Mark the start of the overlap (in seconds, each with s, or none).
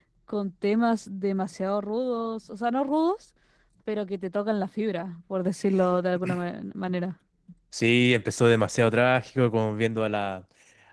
none